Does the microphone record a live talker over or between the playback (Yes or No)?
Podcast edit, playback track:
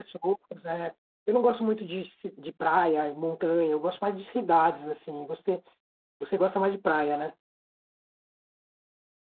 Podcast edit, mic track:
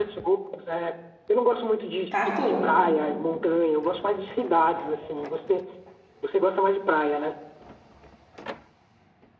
Yes